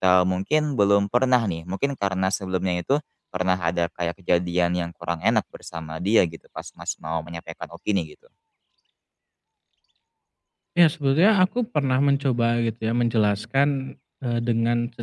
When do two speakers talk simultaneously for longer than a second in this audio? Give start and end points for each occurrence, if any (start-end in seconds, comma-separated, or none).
none